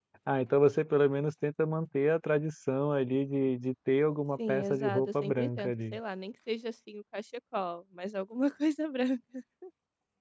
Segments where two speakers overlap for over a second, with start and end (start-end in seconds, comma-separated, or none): 4.5-6.0